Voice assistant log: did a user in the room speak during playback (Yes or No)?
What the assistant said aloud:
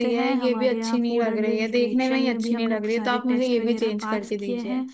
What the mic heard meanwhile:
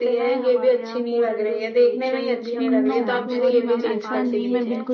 Yes